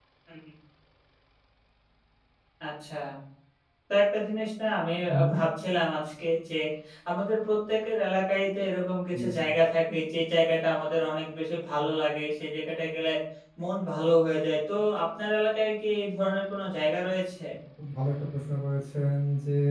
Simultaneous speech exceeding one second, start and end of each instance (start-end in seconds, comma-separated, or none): none